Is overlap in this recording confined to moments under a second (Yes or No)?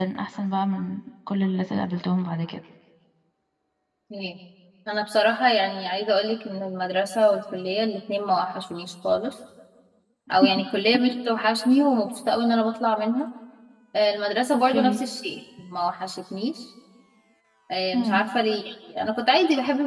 Yes